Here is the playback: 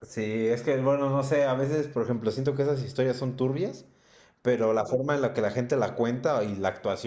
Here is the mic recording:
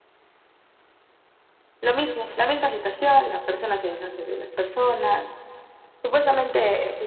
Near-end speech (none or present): present